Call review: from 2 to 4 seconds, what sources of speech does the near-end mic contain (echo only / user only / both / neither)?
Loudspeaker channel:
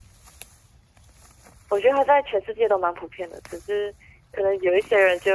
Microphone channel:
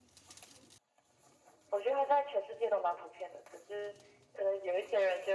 echo only